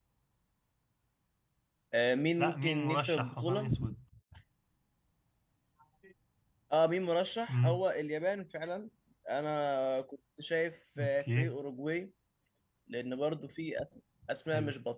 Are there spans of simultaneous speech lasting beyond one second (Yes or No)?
Yes